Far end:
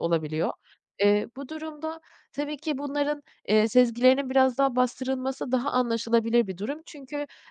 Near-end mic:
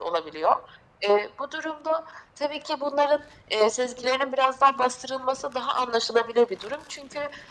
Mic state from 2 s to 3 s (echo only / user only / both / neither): echo only